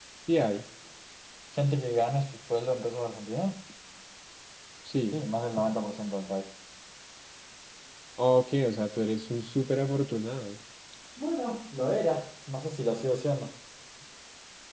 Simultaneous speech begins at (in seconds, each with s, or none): none